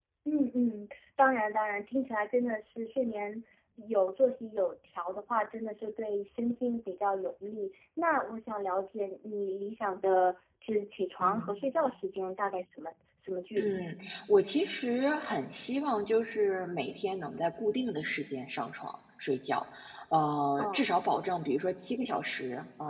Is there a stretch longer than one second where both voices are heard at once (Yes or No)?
No